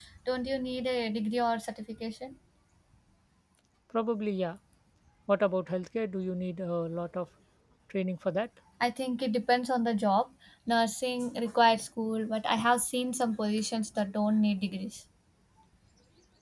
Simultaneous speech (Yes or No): No